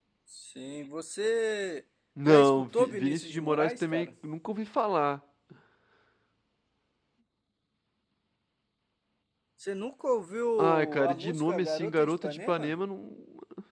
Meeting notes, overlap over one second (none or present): present